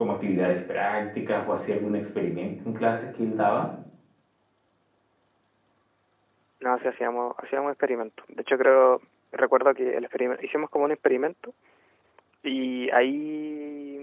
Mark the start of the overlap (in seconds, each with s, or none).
none